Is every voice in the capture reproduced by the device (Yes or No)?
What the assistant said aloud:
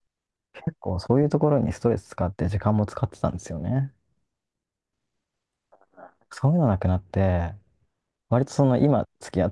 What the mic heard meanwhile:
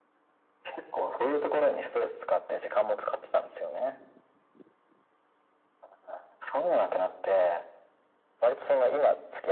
Yes